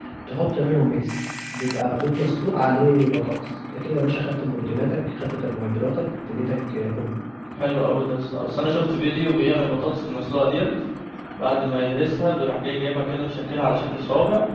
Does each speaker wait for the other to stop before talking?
Yes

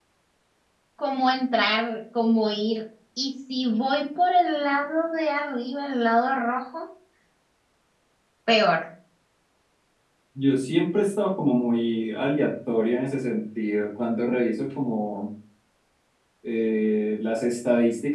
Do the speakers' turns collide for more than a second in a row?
No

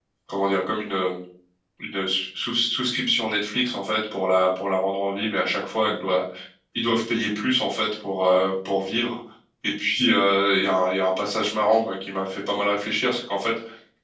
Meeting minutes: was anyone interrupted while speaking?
No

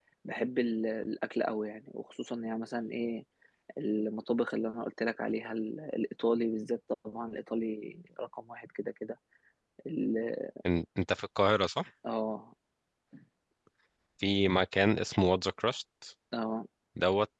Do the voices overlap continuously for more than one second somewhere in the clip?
No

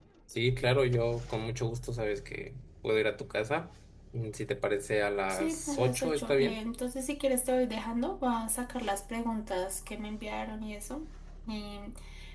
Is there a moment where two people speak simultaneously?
Yes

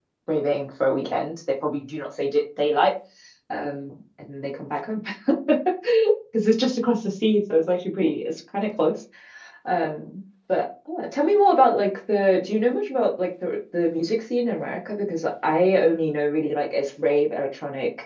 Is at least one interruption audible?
No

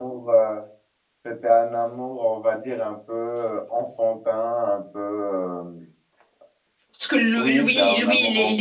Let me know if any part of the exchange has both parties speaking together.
Yes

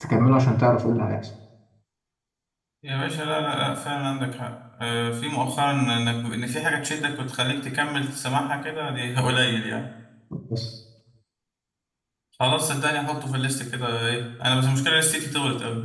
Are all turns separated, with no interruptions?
Yes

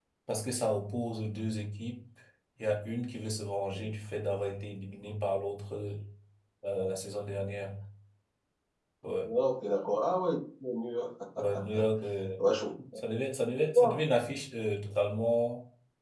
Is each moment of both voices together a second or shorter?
Yes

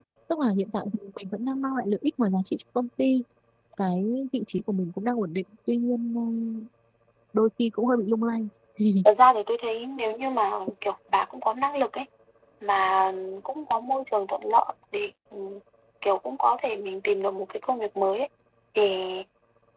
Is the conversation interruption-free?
Yes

